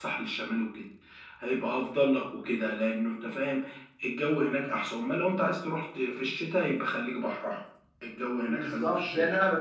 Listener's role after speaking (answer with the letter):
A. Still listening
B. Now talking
B